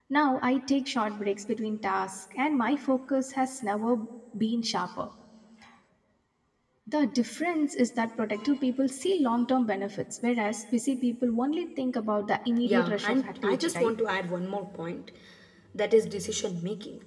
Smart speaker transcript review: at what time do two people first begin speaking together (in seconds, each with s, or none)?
12.6 s